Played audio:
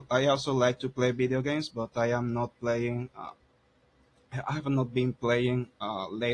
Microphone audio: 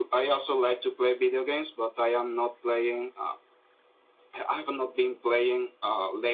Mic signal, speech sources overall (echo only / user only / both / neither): echo only